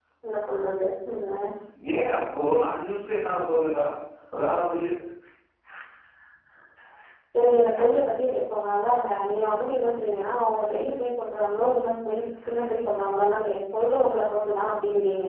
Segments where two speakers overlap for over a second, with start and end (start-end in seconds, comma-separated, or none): none